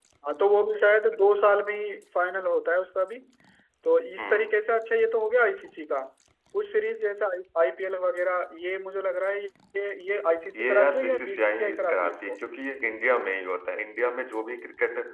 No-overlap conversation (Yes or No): No